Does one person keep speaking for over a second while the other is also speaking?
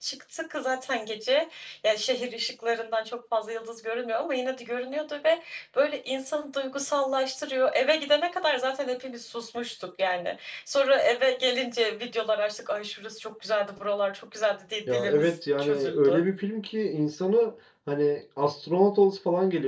Yes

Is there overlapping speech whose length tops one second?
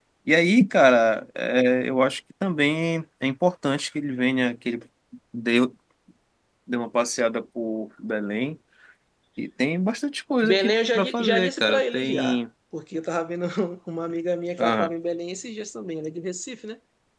Yes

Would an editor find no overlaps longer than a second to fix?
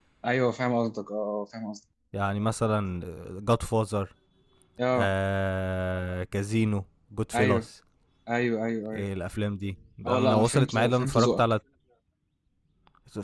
No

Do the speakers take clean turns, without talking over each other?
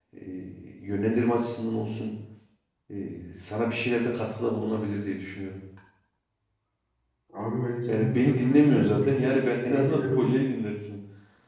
No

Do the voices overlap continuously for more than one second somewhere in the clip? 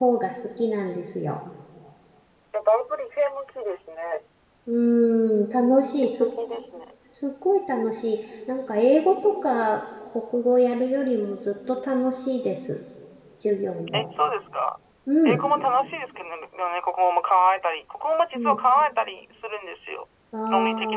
No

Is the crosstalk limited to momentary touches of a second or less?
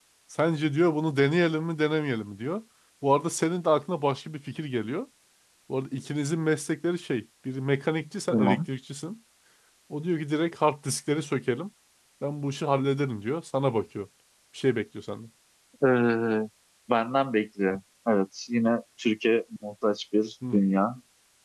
Yes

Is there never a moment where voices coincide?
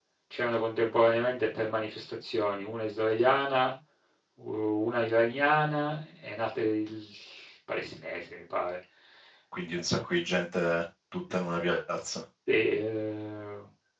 Yes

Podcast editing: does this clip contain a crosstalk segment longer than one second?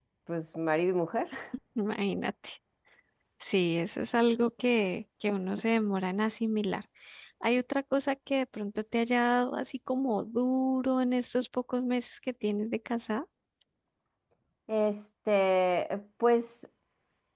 No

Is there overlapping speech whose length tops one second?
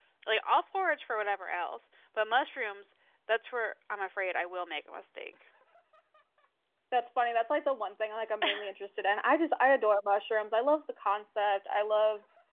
No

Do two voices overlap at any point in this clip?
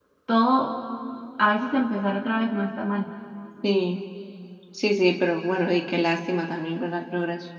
No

